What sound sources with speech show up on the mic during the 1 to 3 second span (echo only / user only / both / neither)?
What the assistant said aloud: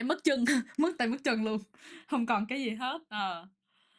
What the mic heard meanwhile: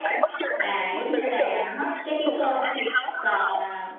both